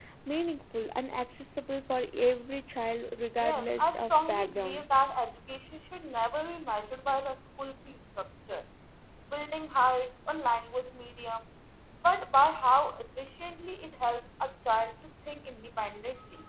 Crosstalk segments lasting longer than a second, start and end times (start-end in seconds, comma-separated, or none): 3.4-4.8